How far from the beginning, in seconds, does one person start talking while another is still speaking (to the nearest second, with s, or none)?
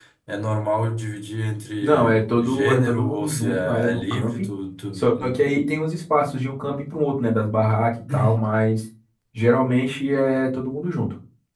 2 s